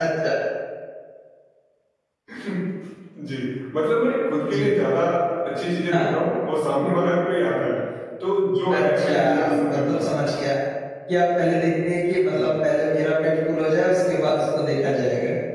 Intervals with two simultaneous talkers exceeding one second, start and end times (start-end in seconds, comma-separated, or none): 8.7-10.1